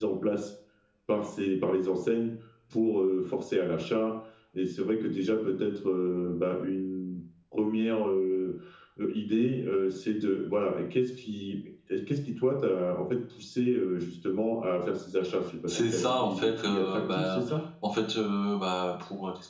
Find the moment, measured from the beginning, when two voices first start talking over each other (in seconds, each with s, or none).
15.7 s